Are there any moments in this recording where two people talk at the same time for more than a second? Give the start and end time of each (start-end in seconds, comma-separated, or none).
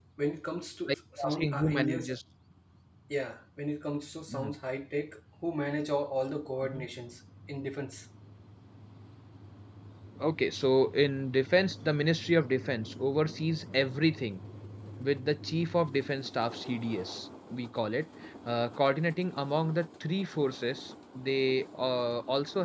0.9-2.1